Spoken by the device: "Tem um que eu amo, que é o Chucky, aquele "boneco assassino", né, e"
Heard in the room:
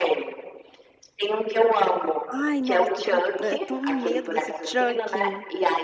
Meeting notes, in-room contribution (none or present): present